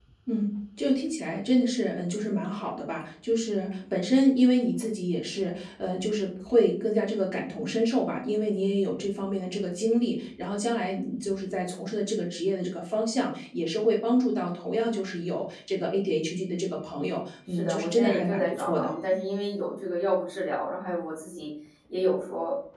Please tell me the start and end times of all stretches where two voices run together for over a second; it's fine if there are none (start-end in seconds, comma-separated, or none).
17.5-18.9